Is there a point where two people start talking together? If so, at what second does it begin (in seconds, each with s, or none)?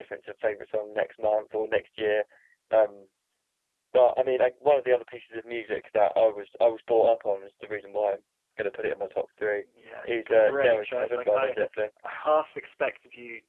10.0 s